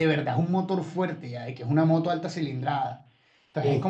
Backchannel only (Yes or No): Yes